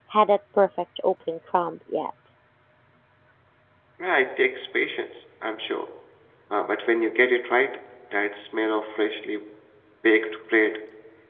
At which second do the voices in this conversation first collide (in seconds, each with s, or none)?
none